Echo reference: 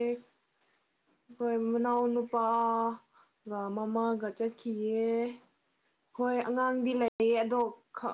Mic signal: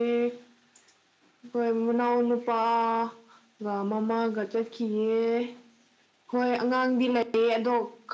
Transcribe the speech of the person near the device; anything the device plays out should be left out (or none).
none